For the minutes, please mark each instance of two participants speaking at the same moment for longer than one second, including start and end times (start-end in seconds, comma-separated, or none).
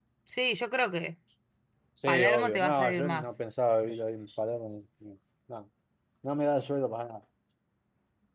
2.1-3.3